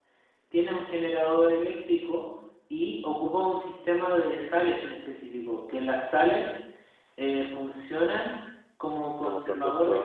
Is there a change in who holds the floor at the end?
No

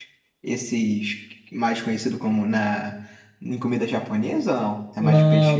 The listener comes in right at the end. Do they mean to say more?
Yes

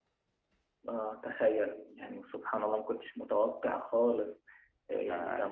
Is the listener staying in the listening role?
Yes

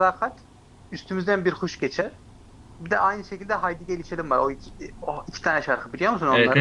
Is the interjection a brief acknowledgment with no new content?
No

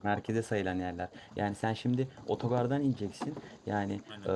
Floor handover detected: No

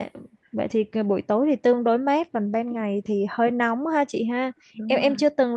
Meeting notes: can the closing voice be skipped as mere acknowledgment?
Yes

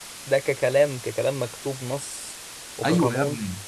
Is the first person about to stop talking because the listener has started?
Yes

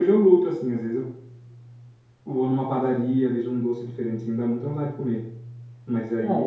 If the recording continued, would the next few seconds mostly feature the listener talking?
Yes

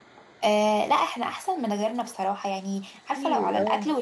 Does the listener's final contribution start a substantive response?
No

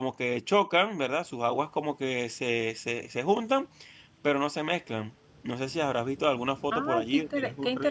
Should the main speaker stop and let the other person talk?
Yes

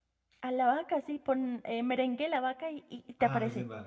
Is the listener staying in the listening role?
No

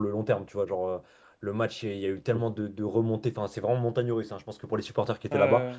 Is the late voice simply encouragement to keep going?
Yes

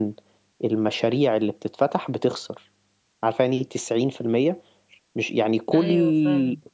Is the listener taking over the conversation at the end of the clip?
No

